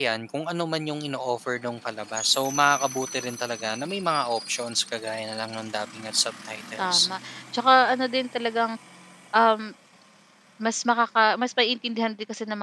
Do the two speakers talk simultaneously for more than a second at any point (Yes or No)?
No